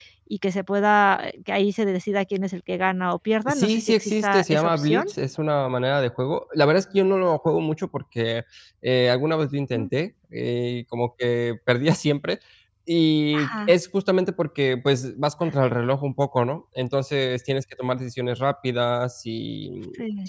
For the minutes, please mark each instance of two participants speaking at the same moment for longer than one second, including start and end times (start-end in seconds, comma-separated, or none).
3.5-5.1